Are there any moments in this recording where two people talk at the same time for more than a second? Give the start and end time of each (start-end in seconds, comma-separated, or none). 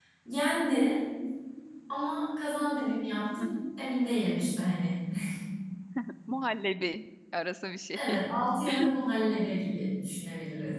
none